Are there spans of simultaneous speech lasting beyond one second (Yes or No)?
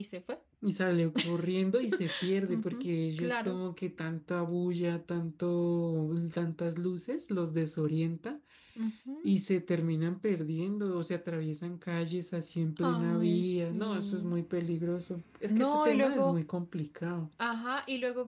Yes